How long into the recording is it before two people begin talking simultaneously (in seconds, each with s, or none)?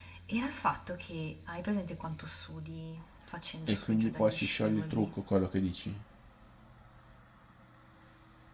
3.7 s